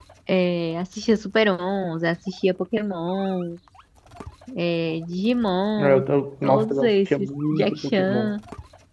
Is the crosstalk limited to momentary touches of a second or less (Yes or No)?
No